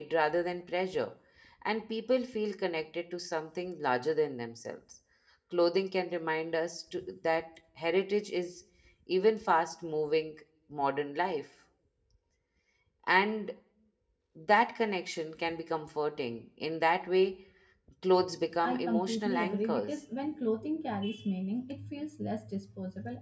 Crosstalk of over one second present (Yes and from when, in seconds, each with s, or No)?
Yes, from 18.6 s